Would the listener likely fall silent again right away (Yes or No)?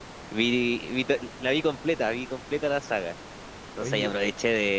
Yes